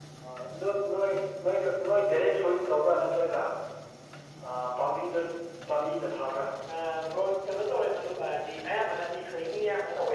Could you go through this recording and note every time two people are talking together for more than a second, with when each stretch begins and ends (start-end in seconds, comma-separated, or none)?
none